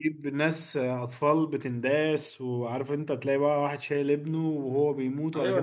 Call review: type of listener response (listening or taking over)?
taking over